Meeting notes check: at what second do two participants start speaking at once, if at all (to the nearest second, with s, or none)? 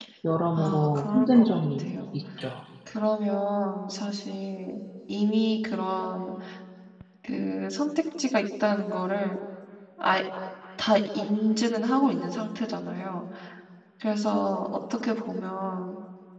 1 s